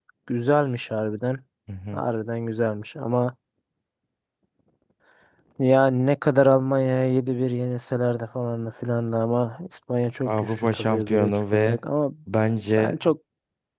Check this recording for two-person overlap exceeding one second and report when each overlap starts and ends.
10.2-11.8

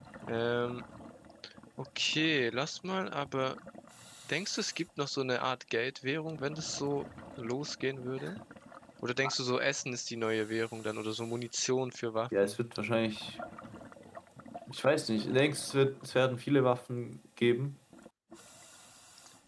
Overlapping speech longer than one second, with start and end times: none

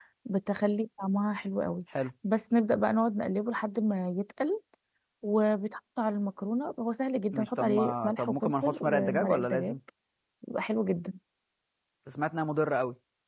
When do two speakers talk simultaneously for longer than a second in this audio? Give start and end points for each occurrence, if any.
7.3-9.8

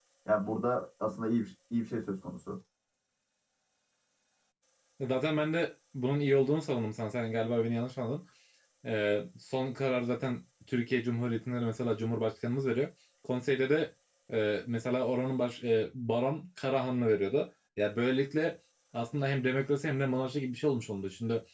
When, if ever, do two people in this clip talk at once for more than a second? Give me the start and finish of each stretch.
none

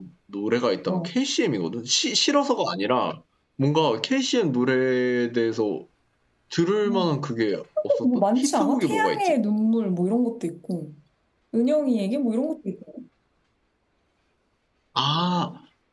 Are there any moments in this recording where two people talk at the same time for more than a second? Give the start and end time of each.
8.1-9.3

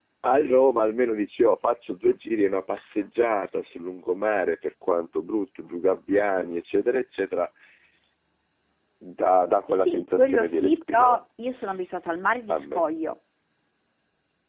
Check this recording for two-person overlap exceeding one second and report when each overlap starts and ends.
9.7-11.2

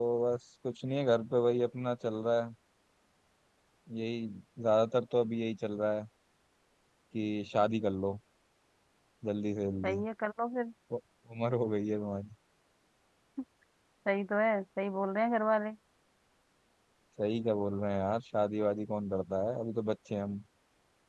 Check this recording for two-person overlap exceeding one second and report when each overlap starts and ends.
none

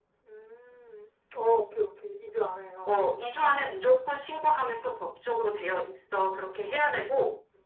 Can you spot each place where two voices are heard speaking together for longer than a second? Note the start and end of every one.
none

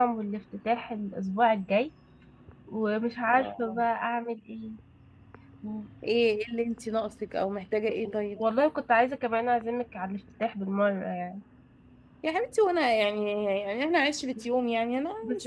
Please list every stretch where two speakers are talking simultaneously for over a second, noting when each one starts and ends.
none

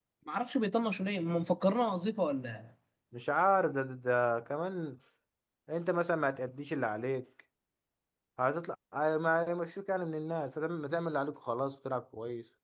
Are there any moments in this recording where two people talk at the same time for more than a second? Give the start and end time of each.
none

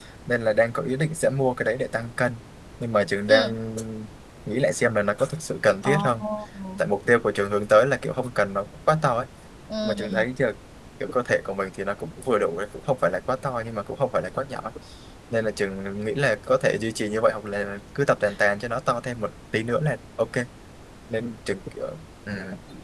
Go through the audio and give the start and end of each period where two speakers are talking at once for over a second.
none

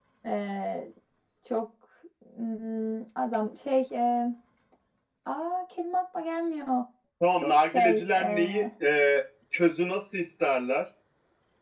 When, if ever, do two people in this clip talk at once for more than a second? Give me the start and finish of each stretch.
7.3-8.7

